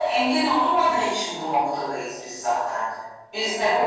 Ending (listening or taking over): listening